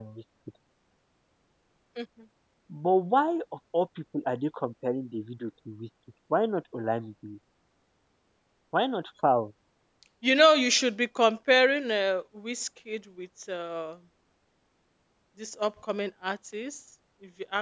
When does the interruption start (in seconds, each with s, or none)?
none